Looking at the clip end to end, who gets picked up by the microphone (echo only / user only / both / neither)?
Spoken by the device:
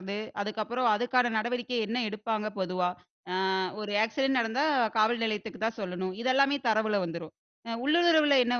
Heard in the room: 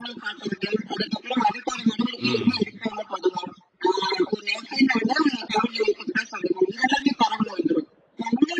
both